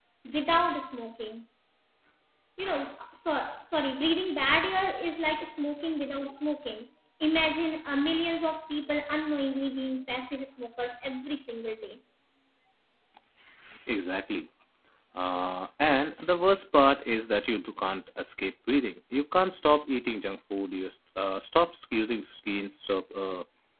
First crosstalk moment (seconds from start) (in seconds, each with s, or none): none